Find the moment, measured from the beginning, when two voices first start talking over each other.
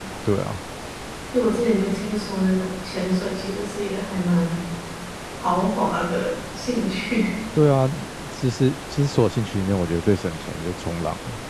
none

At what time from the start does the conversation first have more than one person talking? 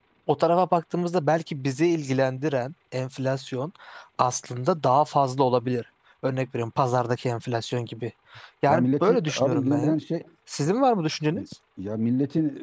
8.7 s

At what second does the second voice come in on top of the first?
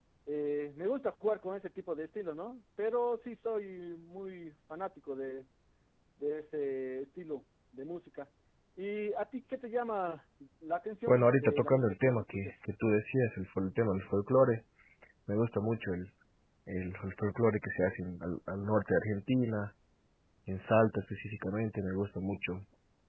11.1 s

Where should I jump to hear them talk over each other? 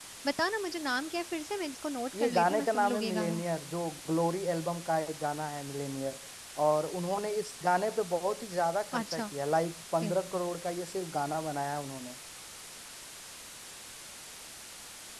2.2 s

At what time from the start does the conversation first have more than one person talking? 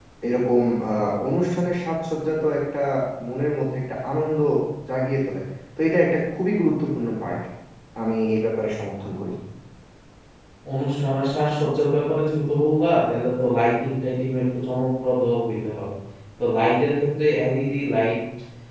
none

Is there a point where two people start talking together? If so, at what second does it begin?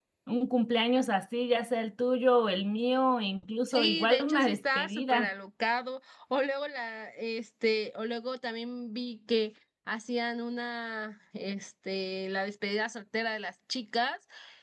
3.7 s

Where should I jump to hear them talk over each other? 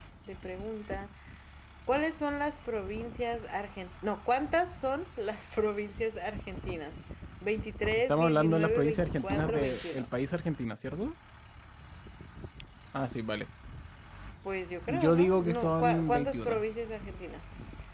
8.1 s

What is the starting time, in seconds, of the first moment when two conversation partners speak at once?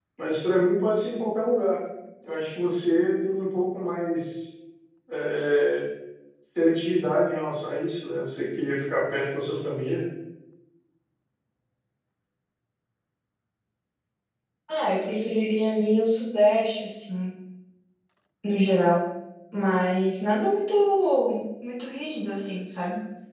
none

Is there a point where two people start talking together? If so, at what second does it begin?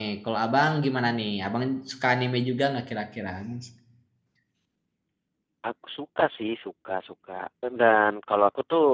none

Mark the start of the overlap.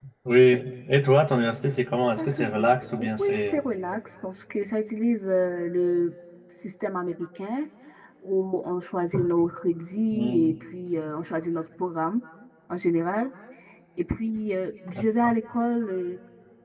2.2 s

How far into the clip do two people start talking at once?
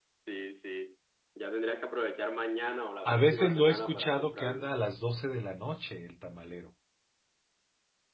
3.0 s

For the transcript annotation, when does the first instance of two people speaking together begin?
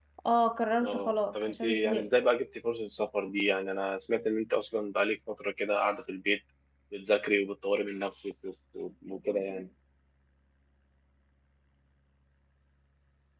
0.8 s

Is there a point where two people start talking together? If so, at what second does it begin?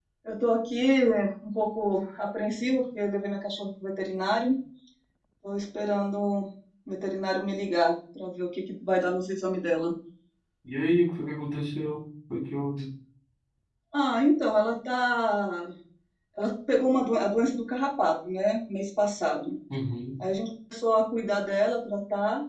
none

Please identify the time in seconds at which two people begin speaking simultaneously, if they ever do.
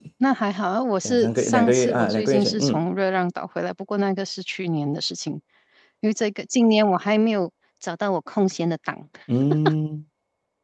1.0 s

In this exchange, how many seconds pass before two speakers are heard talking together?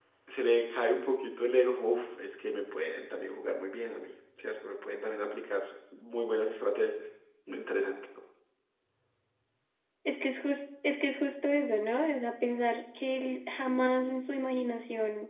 none

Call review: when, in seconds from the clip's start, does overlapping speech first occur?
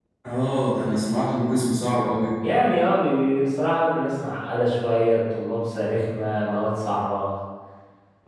none

